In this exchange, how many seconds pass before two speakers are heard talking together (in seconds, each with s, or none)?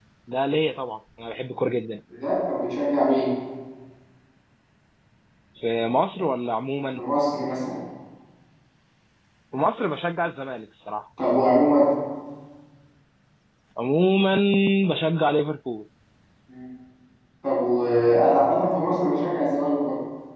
none